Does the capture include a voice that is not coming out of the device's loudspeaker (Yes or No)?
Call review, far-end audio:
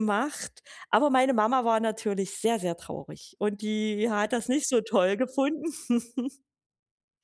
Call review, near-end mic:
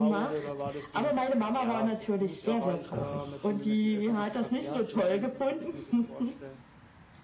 Yes